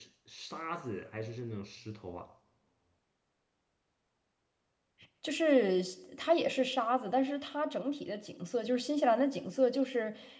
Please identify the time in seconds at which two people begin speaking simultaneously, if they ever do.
none

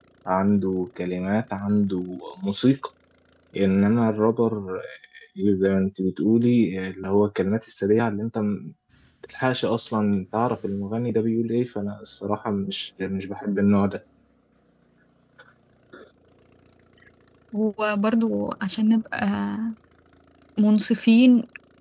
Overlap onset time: none

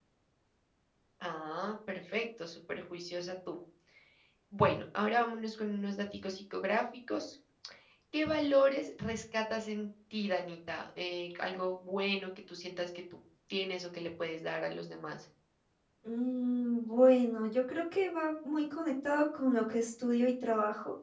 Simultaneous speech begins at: none

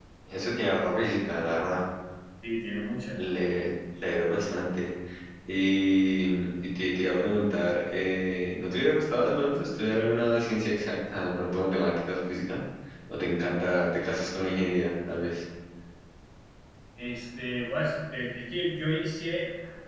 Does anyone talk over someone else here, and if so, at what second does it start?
none

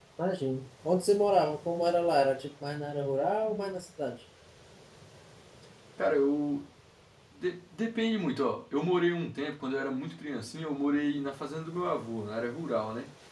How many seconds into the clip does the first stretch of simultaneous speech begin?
none

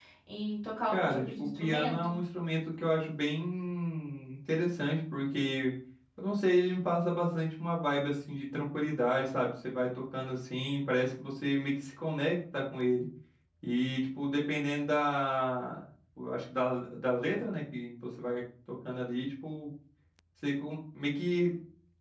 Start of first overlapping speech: 0.9 s

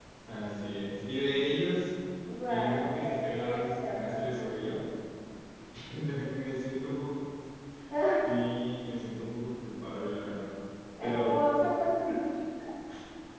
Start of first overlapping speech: 2.5 s

